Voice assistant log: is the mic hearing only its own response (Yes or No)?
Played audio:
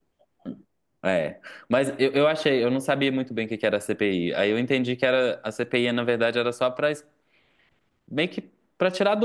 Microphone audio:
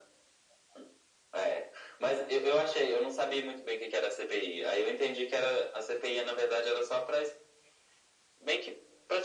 Yes